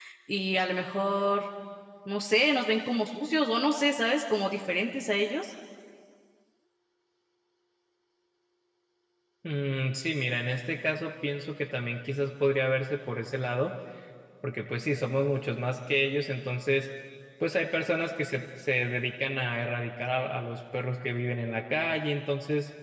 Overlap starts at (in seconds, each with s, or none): none